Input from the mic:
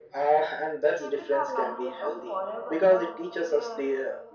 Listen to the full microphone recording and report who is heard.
both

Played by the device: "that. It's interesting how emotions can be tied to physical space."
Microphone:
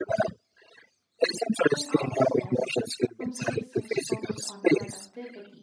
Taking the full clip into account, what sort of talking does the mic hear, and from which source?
both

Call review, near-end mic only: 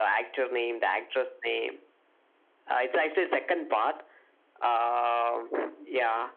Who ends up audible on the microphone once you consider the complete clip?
echo only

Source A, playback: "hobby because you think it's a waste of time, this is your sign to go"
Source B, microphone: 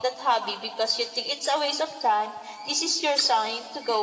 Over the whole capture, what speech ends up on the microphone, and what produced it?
echo only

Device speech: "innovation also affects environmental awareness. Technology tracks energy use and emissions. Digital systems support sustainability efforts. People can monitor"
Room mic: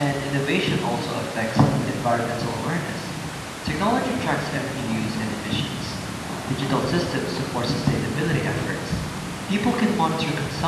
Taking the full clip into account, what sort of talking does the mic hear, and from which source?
echo only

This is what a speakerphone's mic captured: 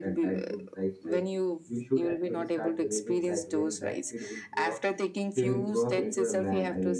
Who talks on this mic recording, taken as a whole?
both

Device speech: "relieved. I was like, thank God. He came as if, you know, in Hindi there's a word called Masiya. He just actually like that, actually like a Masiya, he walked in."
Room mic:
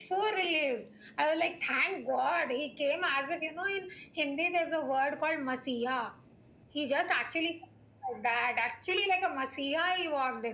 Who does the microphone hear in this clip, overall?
echo only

